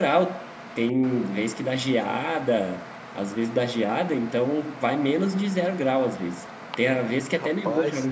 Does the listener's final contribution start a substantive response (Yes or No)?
No